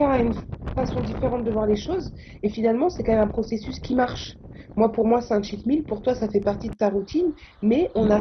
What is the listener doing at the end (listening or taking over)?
listening